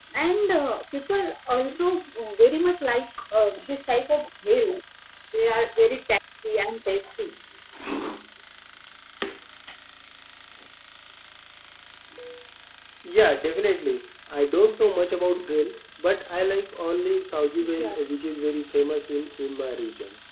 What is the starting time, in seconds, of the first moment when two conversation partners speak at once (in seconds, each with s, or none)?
17.6 s